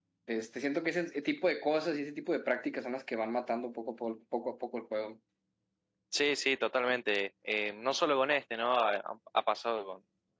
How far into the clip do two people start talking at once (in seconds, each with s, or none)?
none